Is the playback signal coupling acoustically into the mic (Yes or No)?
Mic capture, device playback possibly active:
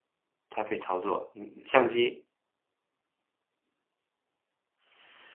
No